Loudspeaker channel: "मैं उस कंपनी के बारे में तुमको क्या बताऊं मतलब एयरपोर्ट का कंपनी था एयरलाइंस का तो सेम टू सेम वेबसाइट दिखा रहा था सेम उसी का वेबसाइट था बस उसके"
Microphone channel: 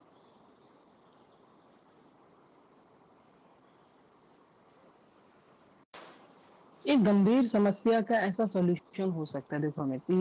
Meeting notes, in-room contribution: present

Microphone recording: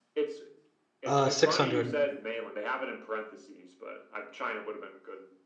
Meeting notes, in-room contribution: present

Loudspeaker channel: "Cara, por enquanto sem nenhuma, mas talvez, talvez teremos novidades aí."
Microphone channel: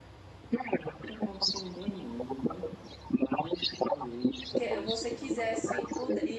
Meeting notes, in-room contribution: present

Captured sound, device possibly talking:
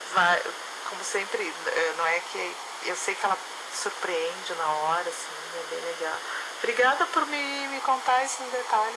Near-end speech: none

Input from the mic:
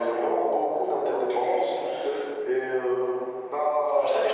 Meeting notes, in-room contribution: none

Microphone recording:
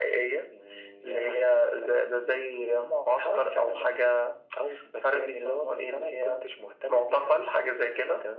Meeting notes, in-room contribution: none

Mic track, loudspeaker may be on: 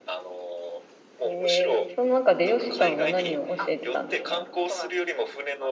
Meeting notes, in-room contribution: present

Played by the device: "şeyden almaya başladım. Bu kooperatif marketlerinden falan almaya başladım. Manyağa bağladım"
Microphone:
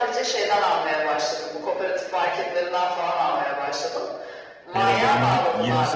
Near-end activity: present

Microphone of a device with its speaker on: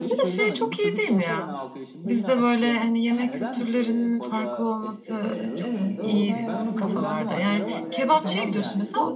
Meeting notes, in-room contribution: present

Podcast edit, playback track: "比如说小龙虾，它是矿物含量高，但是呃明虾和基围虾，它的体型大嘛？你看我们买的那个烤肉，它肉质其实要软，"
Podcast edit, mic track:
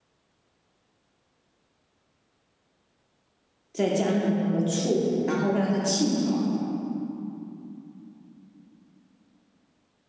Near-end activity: present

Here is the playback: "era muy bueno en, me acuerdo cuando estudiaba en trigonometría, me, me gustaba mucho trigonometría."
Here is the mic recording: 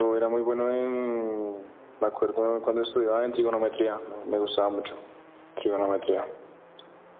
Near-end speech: none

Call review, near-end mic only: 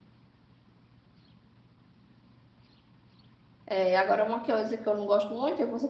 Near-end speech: present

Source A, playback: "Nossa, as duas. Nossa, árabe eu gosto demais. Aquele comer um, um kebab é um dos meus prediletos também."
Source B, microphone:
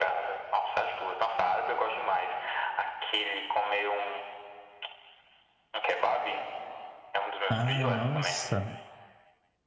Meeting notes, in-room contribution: present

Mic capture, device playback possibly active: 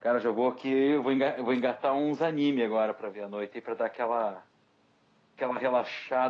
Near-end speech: present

